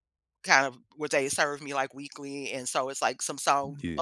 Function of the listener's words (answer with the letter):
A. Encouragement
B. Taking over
A